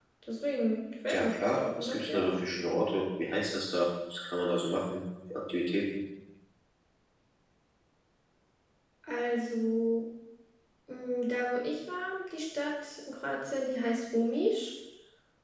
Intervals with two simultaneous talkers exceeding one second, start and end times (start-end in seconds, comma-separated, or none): 1.1-2.3